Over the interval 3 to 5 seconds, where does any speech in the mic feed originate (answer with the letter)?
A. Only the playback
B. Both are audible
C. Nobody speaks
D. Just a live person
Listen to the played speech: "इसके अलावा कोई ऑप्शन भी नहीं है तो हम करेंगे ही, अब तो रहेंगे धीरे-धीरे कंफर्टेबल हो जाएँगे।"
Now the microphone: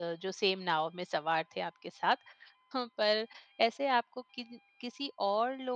D